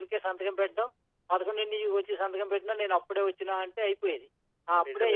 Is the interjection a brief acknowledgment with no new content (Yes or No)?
No